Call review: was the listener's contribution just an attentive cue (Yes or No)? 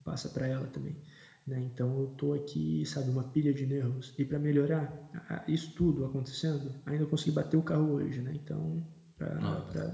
Yes